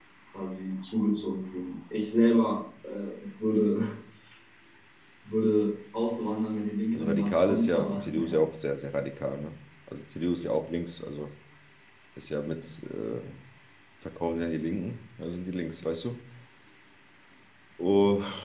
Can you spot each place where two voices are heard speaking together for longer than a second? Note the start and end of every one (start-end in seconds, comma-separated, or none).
6.9-8.4